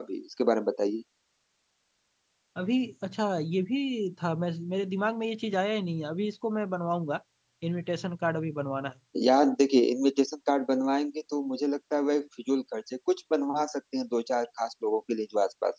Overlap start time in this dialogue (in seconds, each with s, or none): none